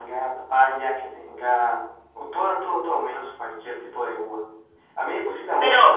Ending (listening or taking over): listening